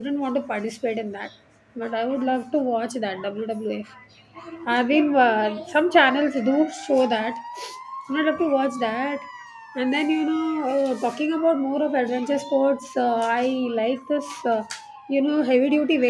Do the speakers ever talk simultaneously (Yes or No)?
No